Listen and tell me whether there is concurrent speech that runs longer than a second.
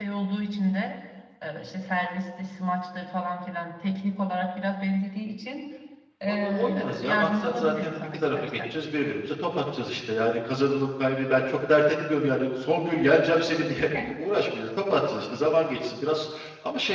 Yes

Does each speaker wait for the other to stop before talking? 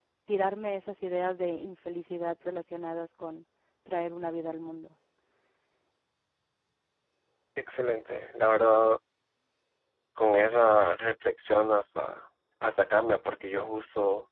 Yes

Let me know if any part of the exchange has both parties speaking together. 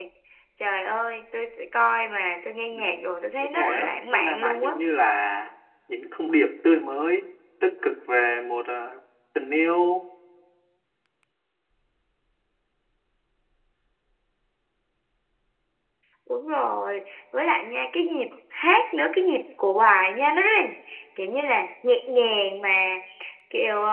Yes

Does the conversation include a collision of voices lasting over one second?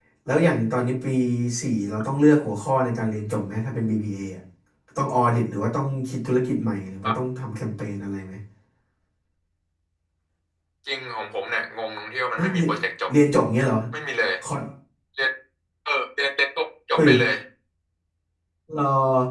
No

